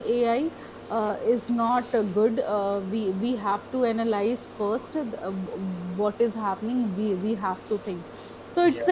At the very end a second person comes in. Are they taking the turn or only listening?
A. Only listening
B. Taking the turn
A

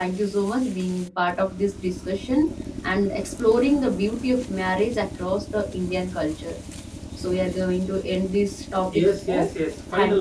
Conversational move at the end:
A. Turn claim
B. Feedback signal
A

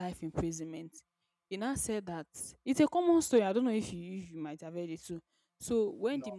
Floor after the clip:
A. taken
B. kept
B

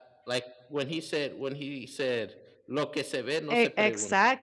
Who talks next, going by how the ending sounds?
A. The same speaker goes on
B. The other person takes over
B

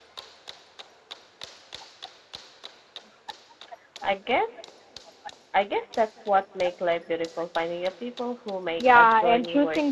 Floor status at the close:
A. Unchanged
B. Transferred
B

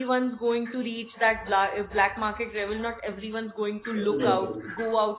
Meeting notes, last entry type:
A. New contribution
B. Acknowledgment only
B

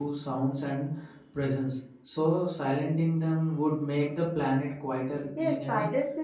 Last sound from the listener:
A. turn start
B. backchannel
A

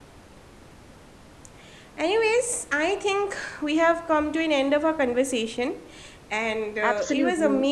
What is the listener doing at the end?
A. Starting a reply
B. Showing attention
B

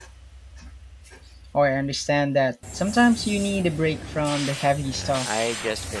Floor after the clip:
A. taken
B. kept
A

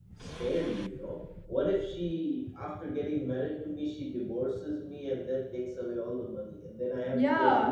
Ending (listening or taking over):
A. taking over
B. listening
A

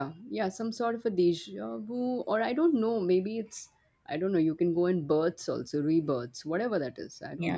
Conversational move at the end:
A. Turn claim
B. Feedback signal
A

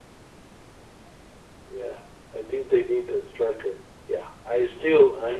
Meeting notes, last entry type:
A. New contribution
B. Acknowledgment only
A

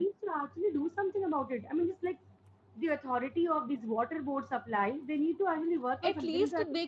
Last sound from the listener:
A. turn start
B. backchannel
A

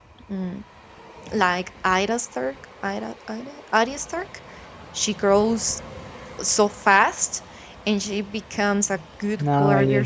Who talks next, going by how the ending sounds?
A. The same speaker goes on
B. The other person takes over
A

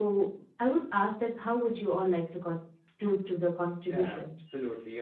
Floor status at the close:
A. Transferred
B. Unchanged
A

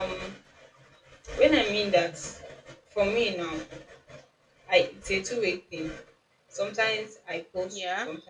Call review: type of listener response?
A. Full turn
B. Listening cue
B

